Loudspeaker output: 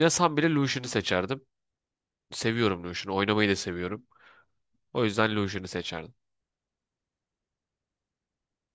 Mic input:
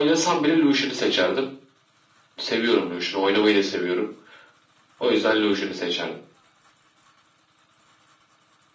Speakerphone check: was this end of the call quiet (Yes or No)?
Yes